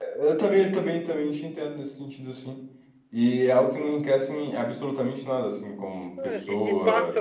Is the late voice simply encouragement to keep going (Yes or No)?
No